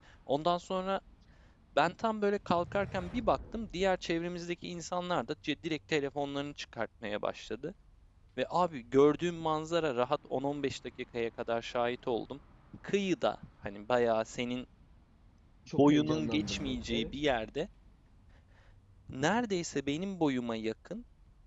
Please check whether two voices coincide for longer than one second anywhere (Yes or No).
Yes